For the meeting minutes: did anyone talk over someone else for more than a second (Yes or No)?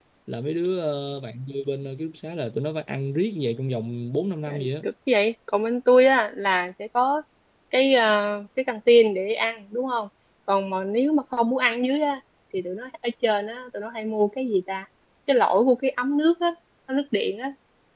No